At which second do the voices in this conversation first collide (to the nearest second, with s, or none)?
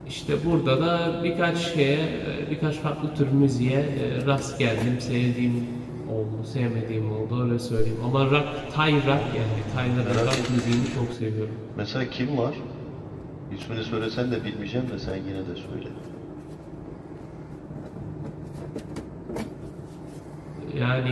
9 s